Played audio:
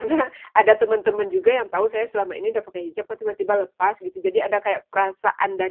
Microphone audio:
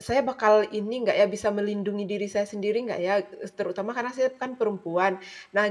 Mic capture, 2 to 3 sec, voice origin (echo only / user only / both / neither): user only